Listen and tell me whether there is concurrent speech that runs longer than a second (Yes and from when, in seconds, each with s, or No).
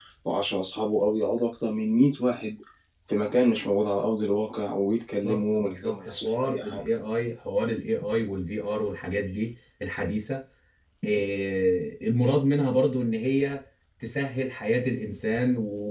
Yes, from 5.2 s